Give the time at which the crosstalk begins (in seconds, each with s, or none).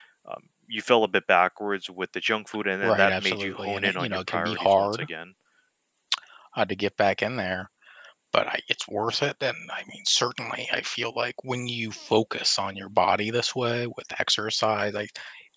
2.8 s